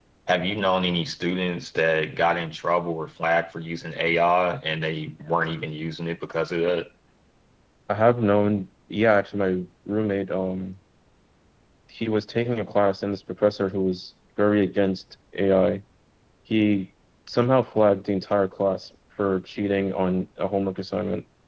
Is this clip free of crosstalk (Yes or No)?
Yes